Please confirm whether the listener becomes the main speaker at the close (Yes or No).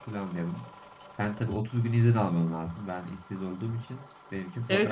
Yes